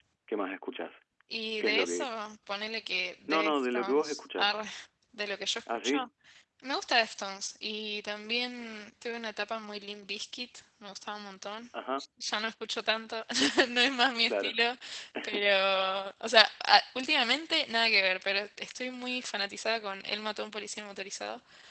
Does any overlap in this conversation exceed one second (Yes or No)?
Yes